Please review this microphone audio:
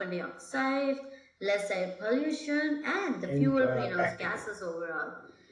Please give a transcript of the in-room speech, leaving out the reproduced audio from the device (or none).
imp- uh, practical.